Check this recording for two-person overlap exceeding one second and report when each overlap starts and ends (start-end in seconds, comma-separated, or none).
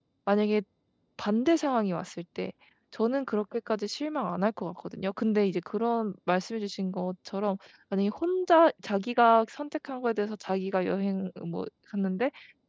none